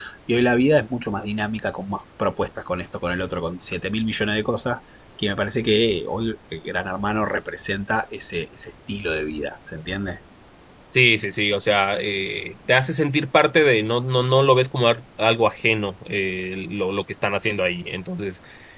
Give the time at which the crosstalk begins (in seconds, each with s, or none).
none